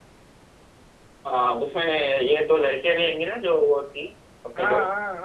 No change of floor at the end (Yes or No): No